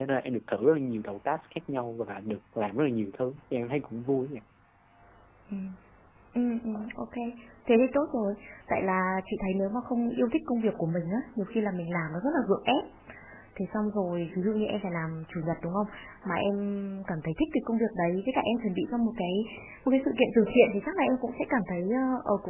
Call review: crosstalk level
none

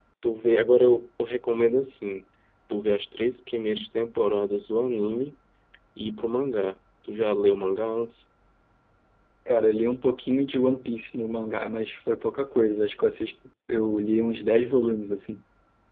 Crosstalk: none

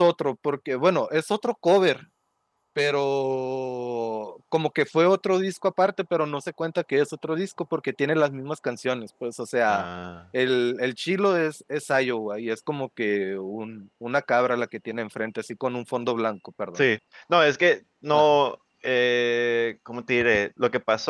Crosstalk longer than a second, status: none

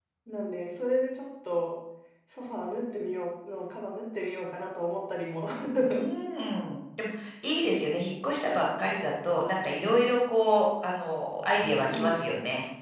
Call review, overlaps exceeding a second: none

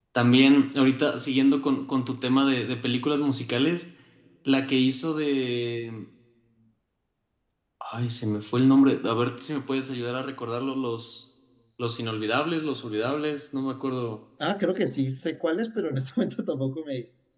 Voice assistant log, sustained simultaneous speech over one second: none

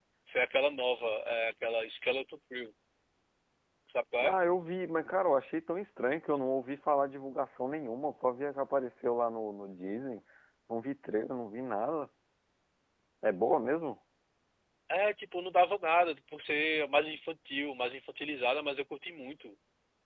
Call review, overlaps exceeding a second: none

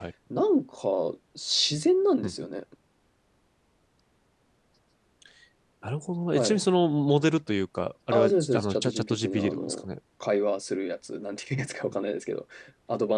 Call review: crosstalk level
present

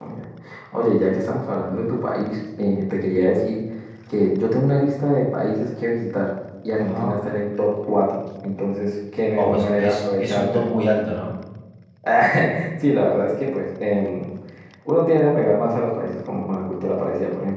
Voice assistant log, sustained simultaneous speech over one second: present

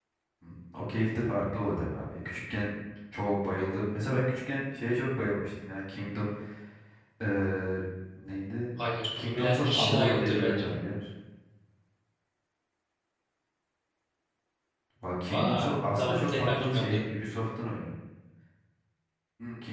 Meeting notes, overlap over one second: present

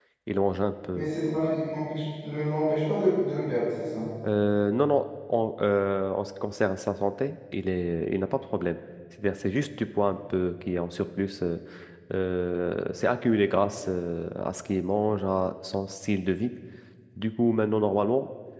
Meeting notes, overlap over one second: none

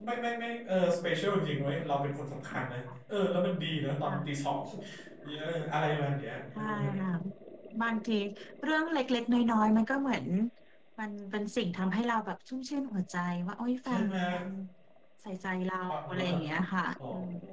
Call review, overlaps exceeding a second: none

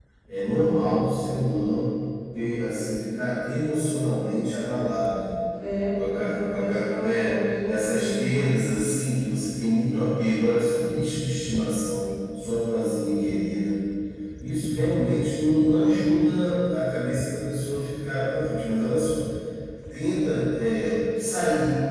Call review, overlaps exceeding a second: present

